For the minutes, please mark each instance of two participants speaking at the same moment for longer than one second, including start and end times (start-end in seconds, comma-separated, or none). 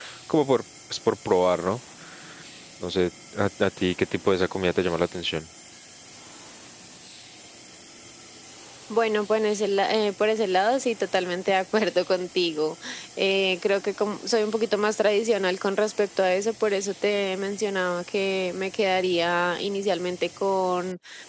none